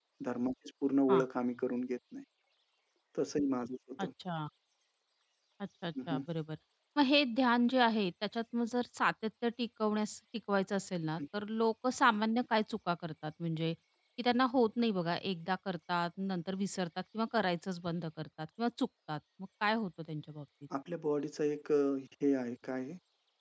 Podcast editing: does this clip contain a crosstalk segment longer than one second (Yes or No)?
No